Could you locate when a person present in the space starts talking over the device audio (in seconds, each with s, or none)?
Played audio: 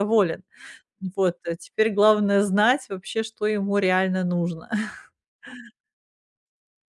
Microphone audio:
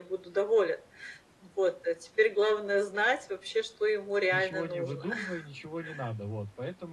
4.3 s